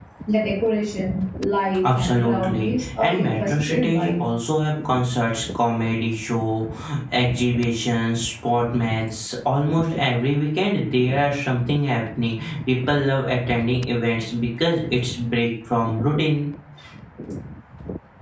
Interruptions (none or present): present